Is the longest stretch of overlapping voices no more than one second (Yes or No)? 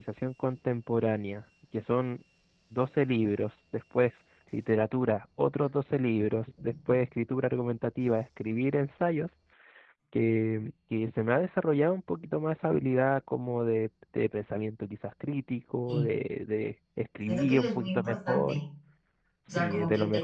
No